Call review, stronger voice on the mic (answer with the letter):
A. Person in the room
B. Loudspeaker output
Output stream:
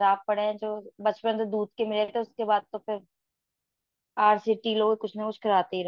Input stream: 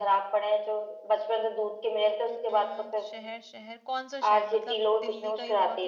B